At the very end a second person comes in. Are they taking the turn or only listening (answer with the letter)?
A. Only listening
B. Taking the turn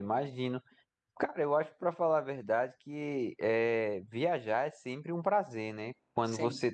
A